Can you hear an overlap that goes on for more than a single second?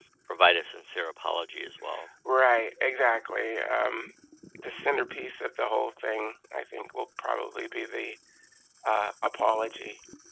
No

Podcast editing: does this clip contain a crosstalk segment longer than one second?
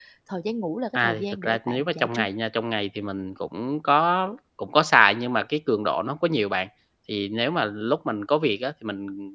Yes, from 1.0 s

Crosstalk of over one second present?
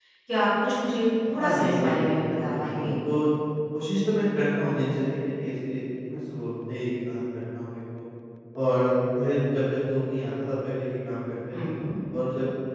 Yes, from 1.4 s

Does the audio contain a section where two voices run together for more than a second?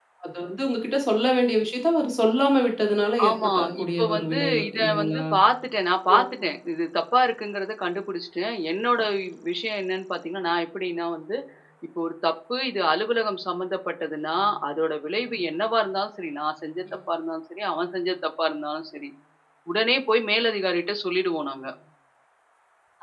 Yes, from 3.3 s

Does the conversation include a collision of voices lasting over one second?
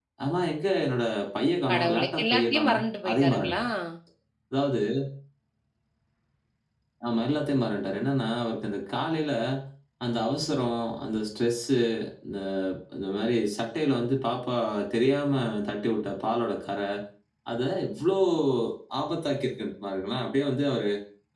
Yes, from 1.7 s

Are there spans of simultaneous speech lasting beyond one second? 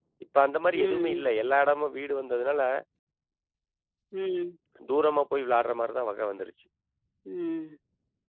No

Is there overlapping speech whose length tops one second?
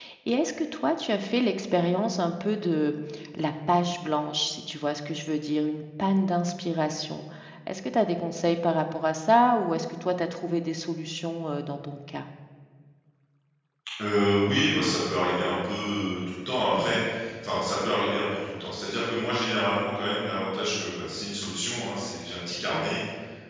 No

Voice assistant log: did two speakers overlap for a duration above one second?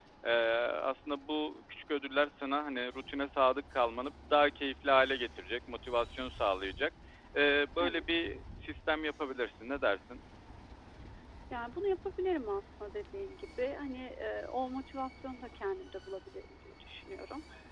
No

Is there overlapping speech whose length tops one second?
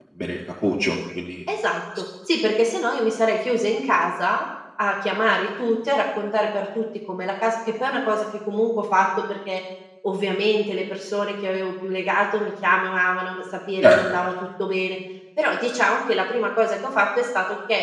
No

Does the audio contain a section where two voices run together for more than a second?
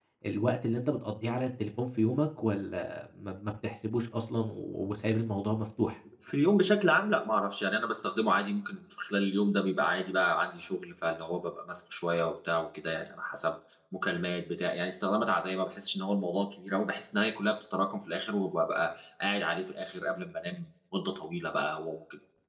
No

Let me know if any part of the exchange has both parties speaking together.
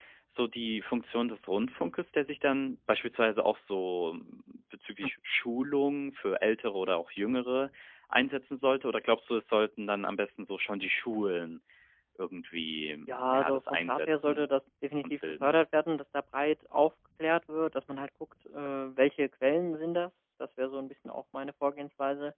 Yes, from 13.1 s

